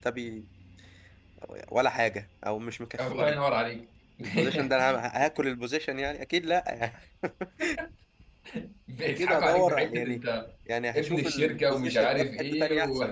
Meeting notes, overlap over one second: present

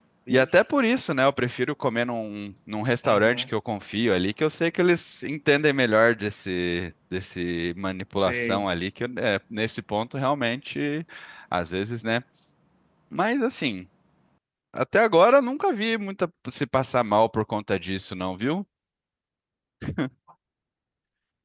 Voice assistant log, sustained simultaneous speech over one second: none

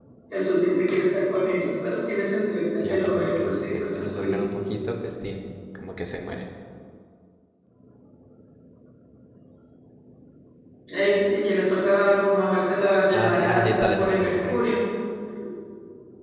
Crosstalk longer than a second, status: present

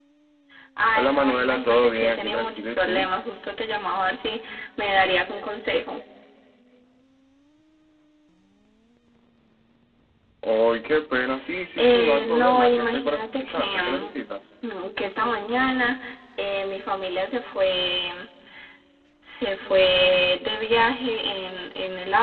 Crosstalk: present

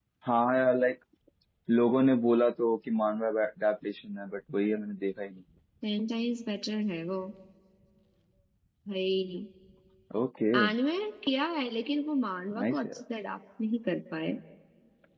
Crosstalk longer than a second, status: none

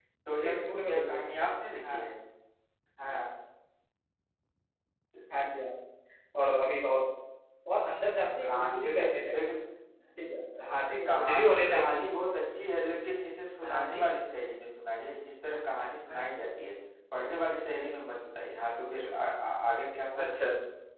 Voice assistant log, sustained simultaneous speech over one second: present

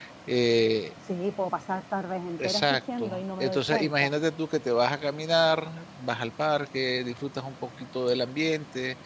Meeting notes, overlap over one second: present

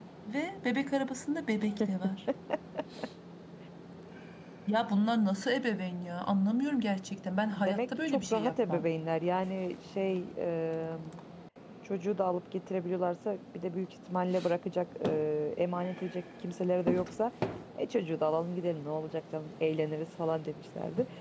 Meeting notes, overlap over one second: present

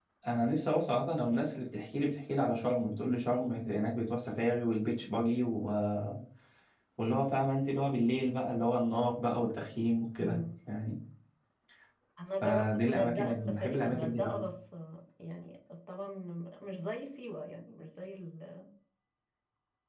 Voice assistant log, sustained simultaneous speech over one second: present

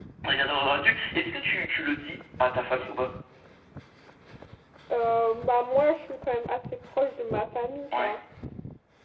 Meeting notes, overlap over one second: none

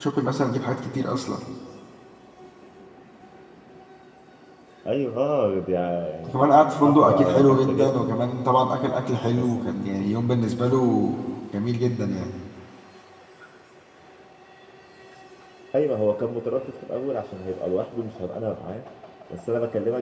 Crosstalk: present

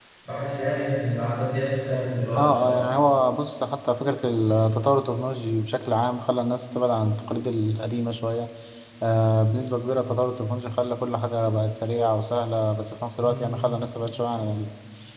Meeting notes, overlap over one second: none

